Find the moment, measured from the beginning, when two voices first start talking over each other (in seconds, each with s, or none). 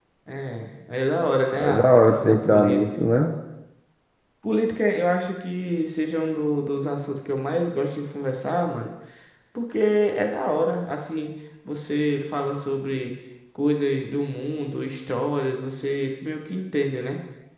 1.5 s